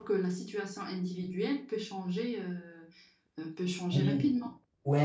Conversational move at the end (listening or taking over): taking over